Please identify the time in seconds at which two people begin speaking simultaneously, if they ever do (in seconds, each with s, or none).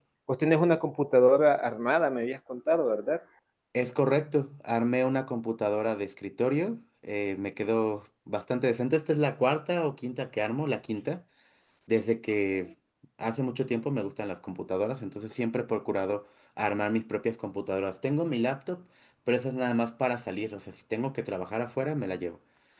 none